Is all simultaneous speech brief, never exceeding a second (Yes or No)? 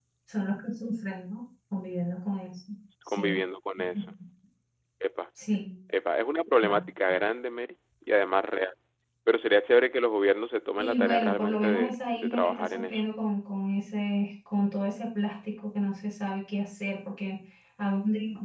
No